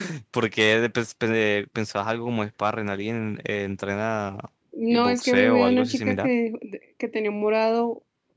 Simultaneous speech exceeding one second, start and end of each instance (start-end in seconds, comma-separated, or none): 5.0-6.3